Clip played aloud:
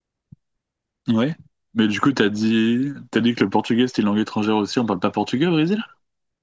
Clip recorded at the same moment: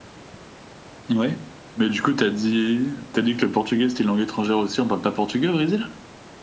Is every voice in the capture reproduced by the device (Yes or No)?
Yes